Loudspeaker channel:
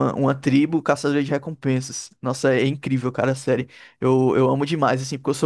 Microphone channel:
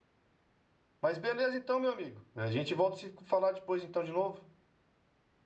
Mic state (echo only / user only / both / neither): user only